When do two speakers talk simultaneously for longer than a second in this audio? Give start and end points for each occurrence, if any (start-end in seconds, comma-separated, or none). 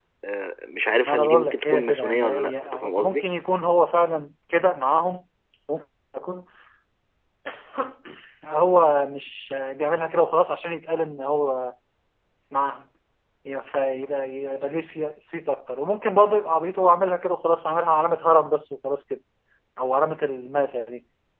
1.0-3.2